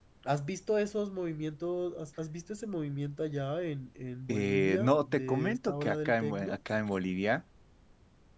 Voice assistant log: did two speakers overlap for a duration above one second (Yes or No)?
Yes